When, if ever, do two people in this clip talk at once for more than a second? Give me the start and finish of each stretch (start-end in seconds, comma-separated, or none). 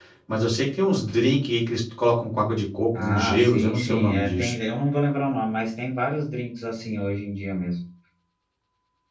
3.0-4.5